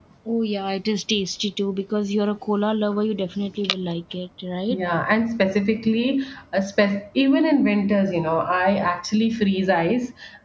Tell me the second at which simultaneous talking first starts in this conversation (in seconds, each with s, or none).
none